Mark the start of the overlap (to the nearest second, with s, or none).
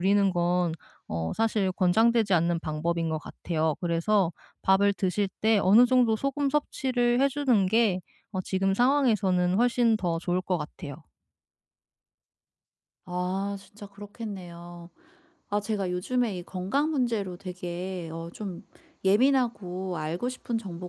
none